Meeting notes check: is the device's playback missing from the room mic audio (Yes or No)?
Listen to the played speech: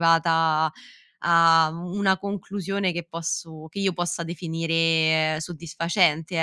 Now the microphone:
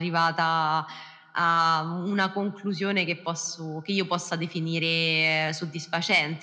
No